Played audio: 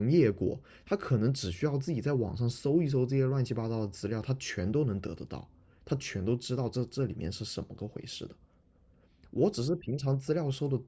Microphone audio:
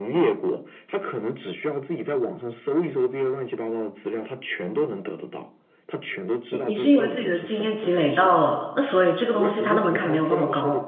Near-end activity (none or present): present